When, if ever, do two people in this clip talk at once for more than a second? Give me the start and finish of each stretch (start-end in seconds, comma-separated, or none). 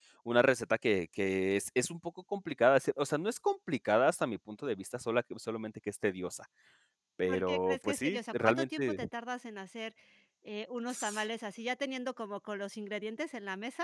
7.3-9.0